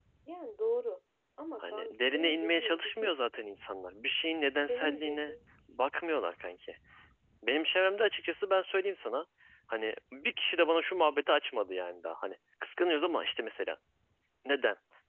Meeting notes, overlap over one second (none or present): present